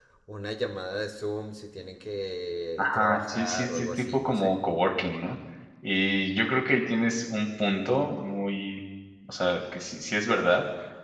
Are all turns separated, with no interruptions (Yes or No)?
No